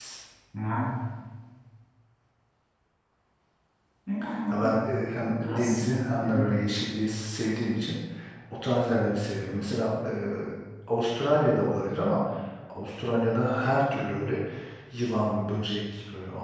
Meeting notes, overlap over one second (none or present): present